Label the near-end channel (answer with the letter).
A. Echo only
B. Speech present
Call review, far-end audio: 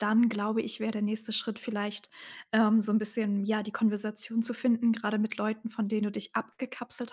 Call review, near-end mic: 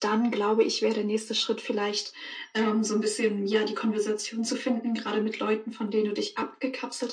A